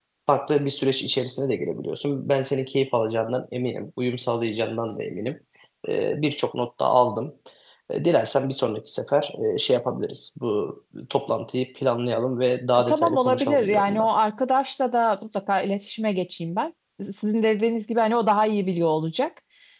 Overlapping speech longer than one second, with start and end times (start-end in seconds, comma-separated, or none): 12.7-14.1